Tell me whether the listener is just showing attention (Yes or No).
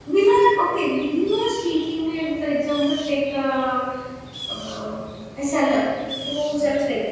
Yes